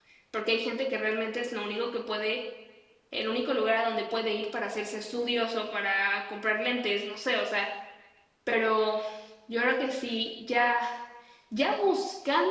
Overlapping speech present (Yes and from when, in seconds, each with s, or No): No